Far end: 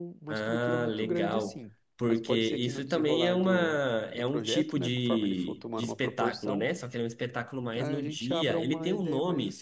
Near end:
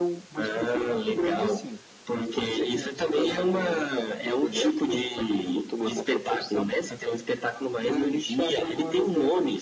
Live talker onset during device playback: none

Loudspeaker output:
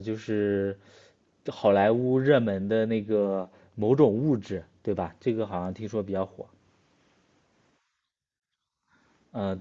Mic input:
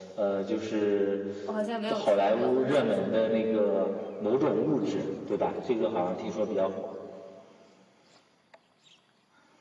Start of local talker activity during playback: 1 s

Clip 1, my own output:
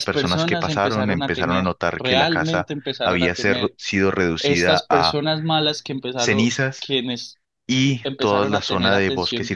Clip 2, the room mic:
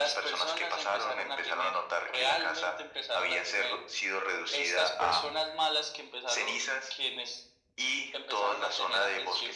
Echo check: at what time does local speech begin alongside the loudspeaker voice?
none

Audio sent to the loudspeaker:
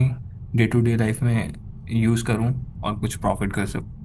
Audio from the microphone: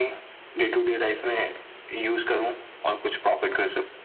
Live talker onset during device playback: none

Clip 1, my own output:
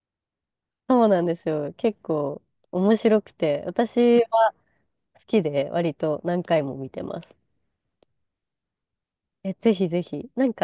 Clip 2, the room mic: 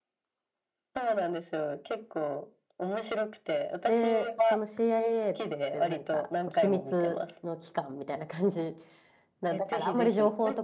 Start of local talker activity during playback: 4 s

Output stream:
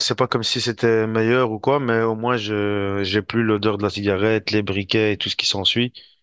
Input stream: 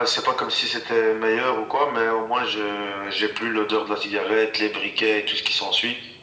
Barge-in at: none

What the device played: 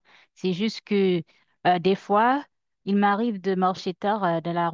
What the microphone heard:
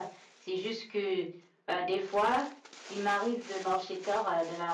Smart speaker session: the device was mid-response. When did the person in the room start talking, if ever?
none

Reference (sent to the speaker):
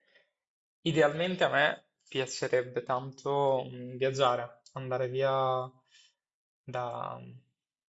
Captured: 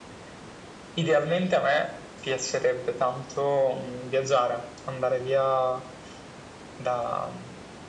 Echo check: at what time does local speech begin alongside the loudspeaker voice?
none

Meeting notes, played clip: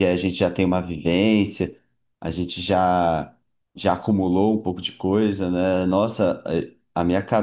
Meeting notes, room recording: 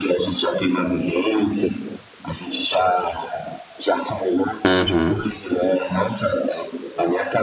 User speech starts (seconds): 5 s

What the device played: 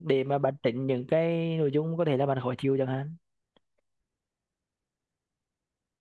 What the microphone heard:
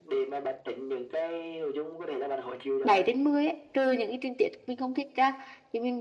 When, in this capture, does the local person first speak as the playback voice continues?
3 s

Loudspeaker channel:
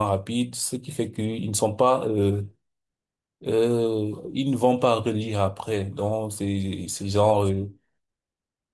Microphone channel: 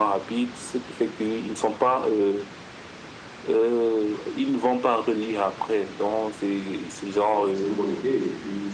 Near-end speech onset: 7 s

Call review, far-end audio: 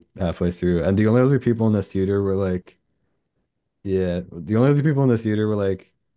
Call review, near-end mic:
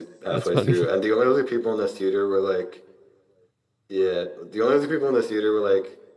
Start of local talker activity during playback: 0 s

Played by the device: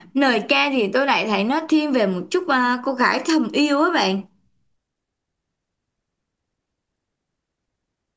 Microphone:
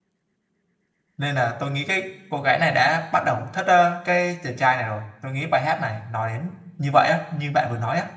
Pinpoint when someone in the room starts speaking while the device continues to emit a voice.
1 s

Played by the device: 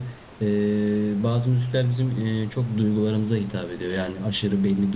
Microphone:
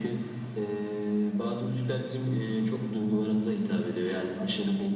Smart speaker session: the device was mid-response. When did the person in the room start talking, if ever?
none

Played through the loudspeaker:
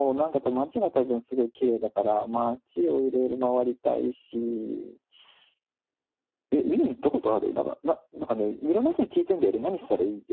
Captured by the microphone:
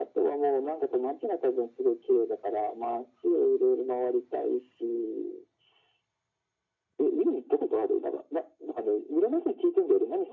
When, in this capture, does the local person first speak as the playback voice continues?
none

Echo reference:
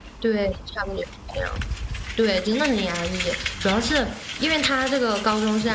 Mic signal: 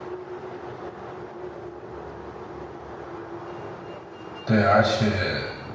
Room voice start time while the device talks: 4 s

